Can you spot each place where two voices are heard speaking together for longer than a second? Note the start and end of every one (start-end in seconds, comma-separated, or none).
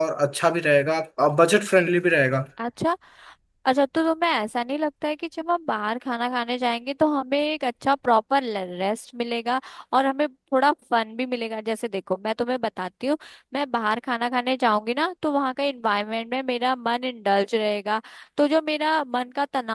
none